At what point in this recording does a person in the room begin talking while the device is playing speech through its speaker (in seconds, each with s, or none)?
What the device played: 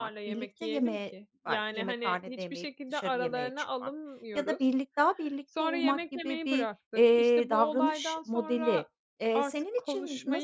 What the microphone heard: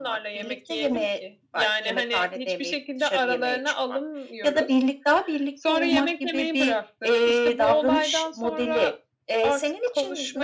none